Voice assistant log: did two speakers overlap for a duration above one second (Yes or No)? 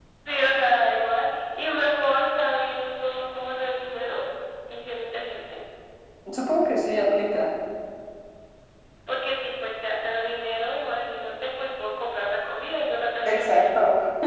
No